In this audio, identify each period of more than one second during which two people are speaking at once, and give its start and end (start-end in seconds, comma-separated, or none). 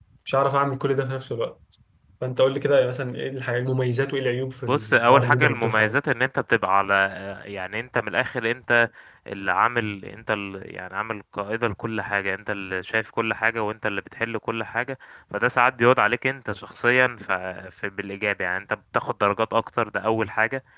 4.7-6.0